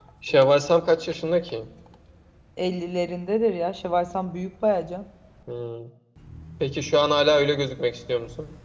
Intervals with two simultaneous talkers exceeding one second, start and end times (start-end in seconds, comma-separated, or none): none